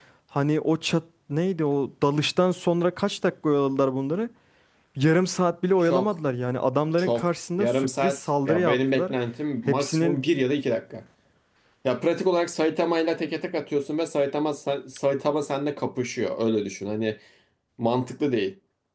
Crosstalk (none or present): present